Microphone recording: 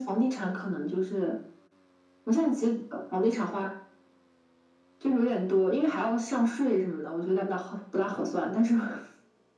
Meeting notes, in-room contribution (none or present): none